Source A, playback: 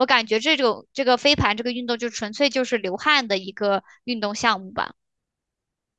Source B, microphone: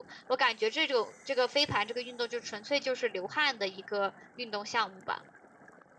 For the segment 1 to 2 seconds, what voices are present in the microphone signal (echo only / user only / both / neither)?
echo only